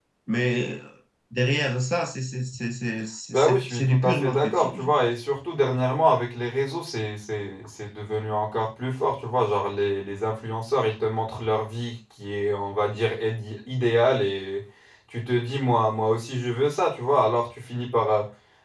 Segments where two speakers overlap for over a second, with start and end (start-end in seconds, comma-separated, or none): 3.3-5.1